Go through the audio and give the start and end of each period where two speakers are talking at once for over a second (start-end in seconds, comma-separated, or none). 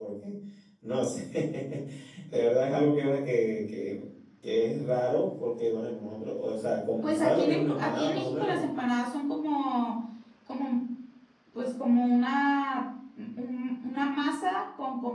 7.0-8.6